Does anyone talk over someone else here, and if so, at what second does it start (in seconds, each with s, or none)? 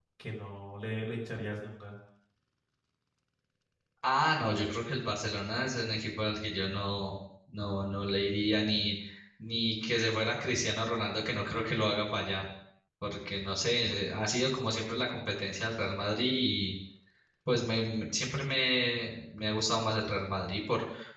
none